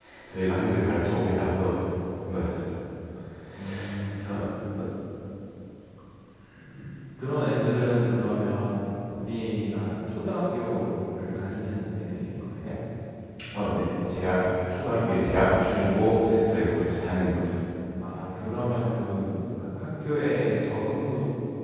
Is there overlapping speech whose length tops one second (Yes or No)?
No